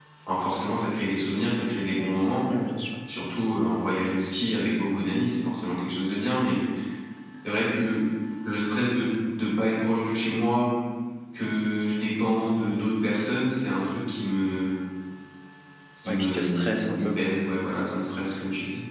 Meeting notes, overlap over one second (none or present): present